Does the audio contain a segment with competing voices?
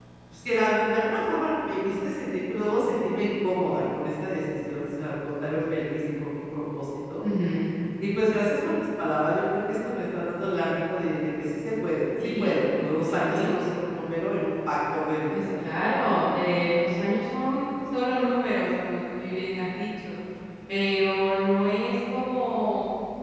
Yes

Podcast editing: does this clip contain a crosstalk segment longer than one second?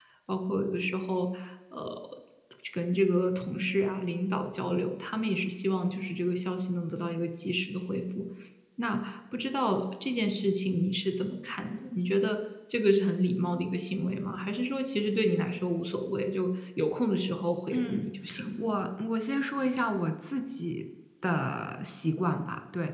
No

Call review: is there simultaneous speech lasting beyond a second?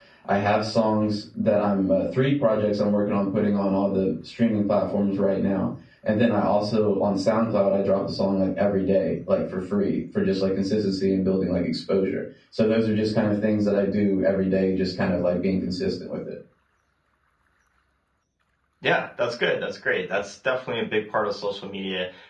No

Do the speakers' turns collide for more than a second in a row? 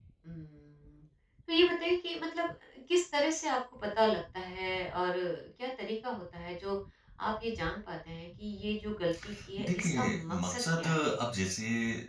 Yes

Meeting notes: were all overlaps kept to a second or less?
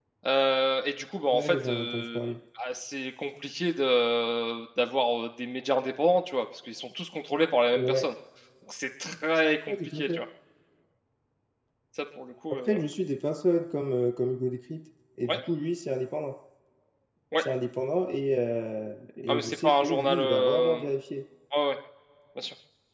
No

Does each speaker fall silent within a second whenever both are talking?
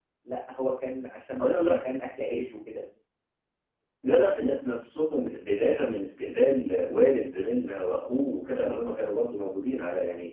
Yes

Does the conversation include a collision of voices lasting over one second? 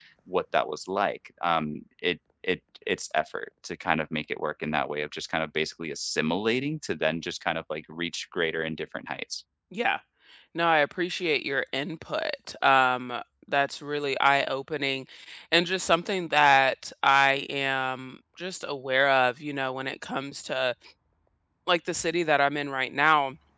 No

